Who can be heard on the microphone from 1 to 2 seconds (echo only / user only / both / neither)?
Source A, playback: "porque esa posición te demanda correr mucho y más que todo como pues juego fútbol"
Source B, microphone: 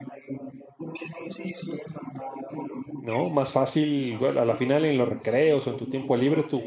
echo only